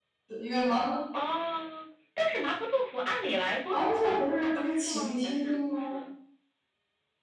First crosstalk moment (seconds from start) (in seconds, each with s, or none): 3.7 s